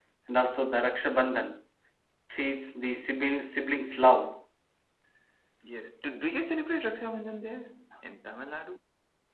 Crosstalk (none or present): none